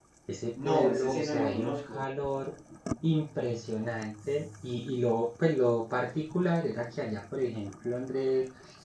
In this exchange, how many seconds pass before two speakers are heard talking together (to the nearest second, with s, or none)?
1 s